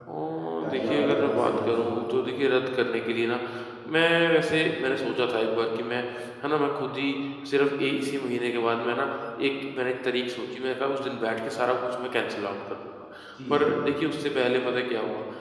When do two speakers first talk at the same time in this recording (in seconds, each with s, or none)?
0.6 s